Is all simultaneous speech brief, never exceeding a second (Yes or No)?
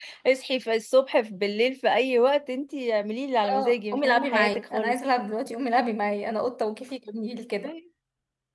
No